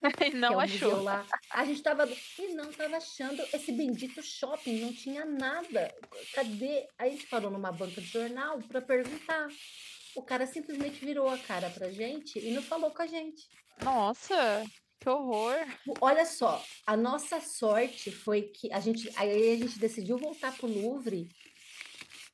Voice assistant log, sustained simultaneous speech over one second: none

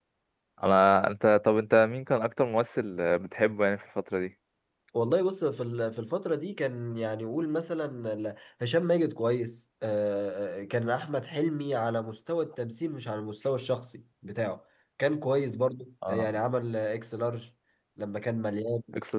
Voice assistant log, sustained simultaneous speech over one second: none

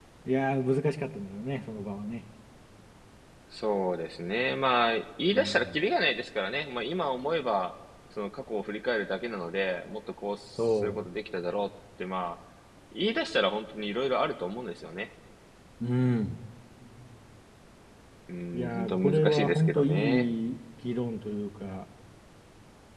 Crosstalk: present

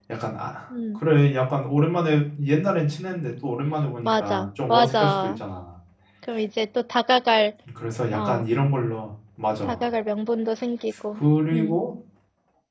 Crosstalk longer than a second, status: present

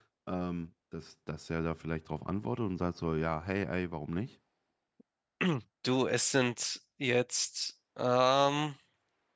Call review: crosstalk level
none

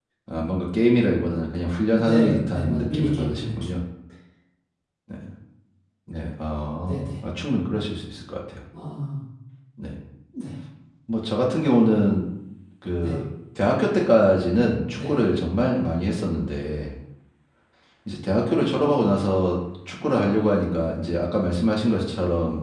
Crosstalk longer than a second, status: present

